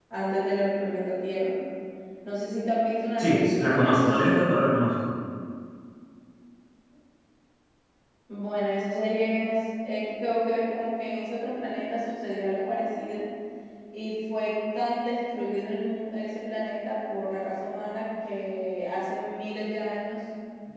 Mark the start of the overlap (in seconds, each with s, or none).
3.2 s